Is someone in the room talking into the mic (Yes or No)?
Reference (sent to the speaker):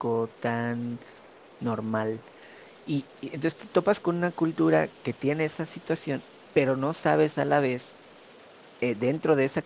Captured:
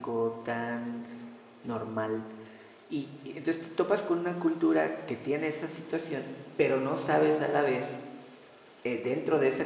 No